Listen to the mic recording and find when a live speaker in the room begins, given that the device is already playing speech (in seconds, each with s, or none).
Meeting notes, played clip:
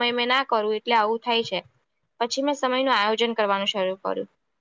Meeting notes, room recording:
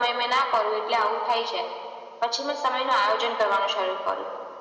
none